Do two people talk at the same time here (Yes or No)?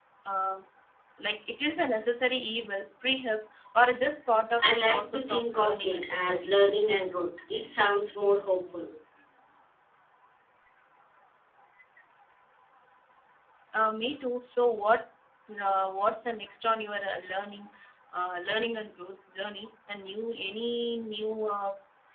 Yes